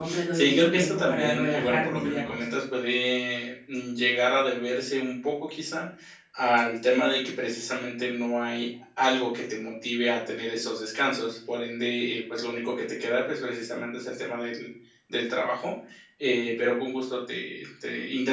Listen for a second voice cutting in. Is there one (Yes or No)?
Yes